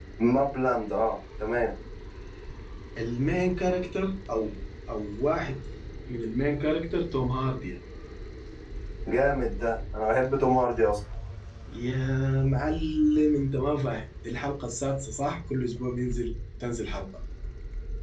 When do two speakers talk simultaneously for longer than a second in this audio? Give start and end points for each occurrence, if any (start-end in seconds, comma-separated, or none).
none